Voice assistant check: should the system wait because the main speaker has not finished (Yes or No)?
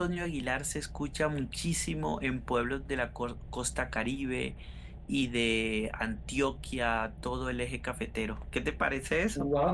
No